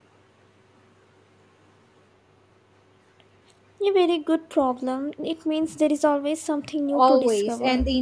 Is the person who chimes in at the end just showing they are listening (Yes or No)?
No